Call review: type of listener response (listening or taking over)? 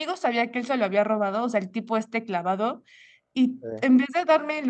listening